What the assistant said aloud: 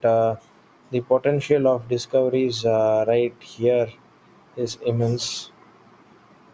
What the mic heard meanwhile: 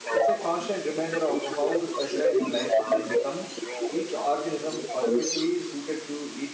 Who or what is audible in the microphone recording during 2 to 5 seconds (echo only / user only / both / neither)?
both